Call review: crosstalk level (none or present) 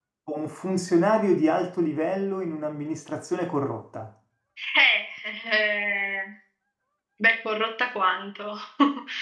none